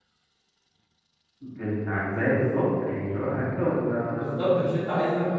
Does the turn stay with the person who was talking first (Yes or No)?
No